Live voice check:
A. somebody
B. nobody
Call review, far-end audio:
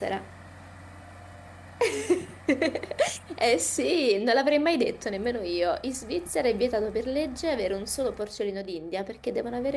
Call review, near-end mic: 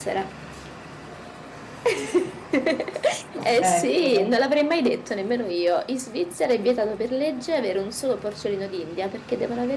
A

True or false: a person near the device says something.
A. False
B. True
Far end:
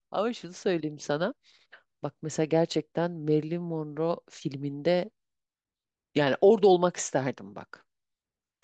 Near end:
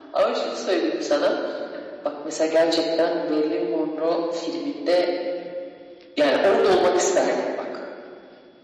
A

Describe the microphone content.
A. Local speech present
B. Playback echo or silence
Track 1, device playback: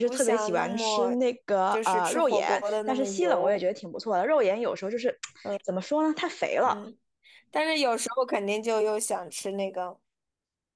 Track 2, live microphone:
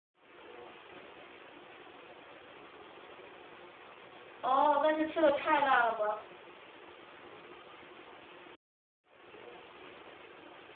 A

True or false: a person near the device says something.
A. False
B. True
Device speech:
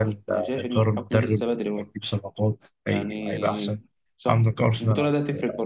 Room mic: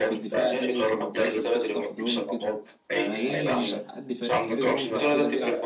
B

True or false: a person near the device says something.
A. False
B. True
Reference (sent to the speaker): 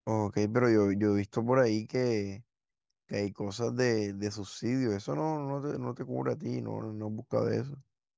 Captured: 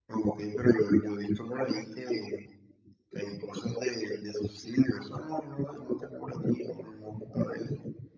A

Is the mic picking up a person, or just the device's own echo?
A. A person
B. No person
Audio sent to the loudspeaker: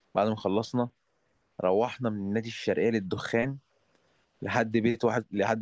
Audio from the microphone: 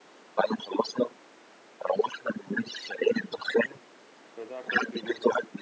A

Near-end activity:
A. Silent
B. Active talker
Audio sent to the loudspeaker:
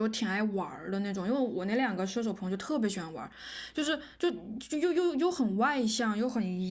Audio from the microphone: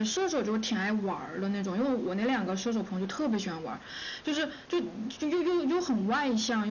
A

